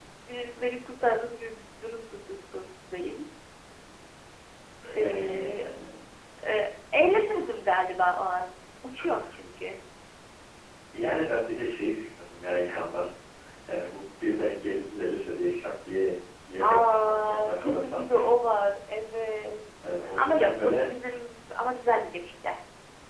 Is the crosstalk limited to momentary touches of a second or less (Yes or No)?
No